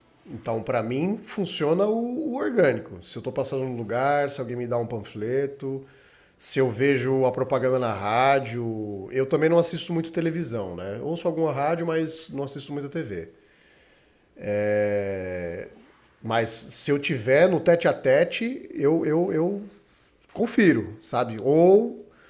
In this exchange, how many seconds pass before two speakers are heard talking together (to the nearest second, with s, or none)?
none